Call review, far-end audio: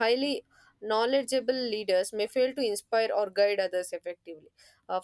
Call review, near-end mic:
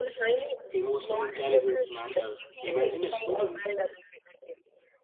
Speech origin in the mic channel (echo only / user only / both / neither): both